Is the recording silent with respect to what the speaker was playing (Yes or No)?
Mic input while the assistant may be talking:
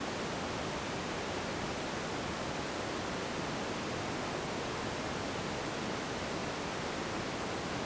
Yes